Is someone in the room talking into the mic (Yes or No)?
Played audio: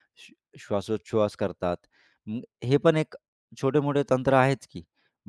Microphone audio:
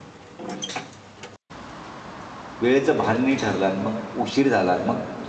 Yes